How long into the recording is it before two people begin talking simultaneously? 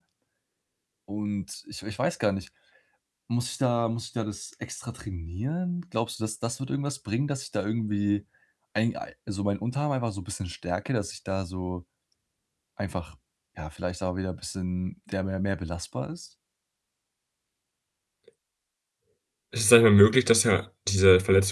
none

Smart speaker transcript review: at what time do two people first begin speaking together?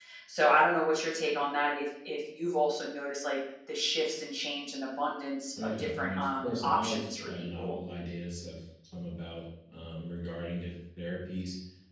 5.6 s

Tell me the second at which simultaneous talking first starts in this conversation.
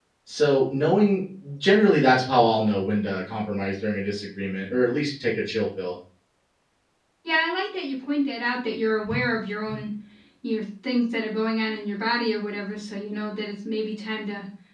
none

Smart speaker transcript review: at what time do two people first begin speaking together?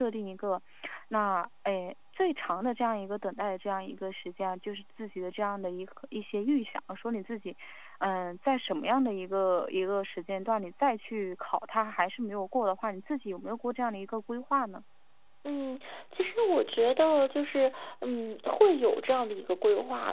none

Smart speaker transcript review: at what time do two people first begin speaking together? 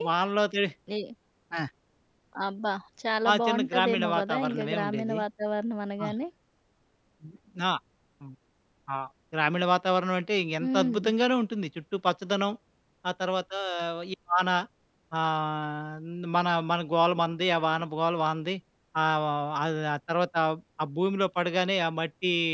3.4 s

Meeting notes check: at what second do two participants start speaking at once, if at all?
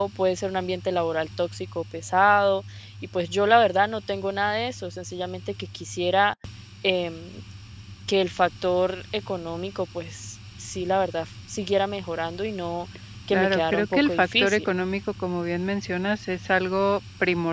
13.3 s

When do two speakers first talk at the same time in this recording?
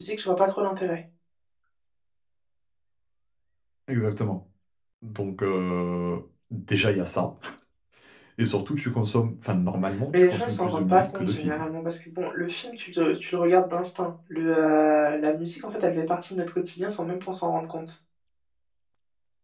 10.1 s

